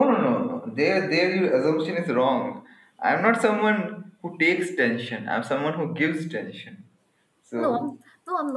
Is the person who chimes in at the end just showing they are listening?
No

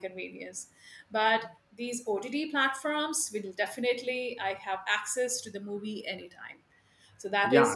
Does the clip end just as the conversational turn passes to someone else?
Yes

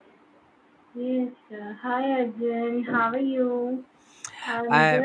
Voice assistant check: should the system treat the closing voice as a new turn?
No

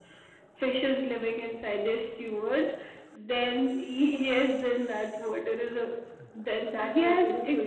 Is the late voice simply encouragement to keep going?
No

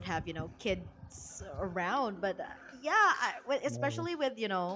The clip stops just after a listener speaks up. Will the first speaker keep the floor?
Yes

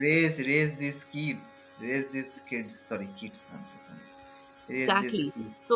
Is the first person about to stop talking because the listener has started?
Yes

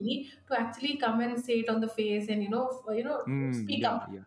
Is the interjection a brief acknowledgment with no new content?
No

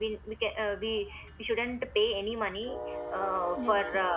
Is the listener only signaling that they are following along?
Yes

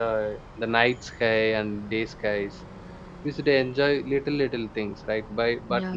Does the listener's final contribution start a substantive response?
No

